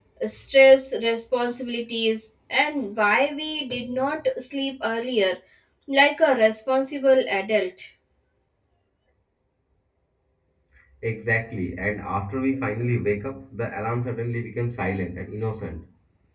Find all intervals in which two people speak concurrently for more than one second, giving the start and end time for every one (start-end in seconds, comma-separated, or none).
none